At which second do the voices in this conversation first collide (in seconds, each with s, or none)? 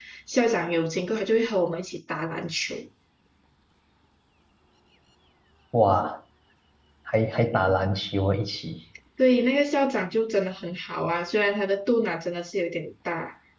none